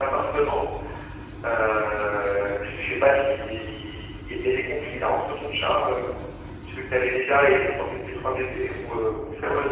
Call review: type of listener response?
taking over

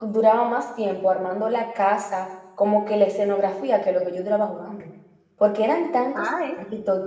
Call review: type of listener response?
listening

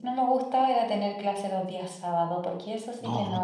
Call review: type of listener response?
taking over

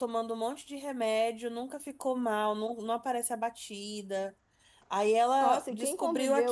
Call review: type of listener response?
taking over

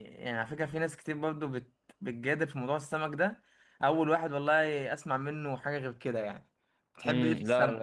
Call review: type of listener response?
taking over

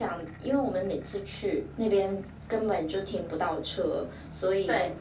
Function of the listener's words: listening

